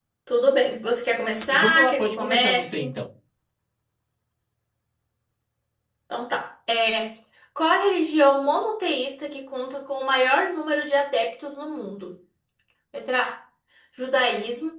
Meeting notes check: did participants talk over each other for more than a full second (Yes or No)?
Yes